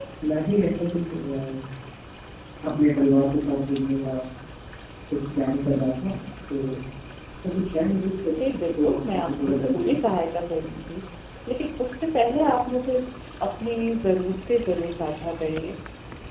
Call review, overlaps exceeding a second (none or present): present